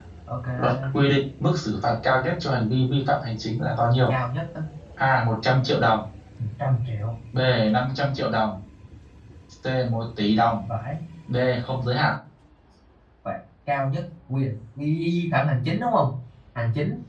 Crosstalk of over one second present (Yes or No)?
No